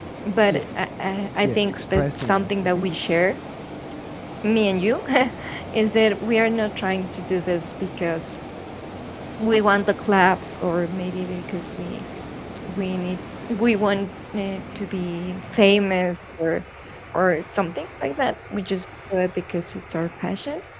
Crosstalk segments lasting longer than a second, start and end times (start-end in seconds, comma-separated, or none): 1.4-2.8